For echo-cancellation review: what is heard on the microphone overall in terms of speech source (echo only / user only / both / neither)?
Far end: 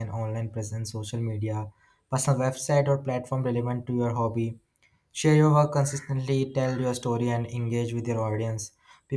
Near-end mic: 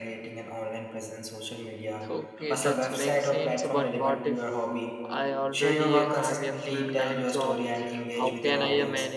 both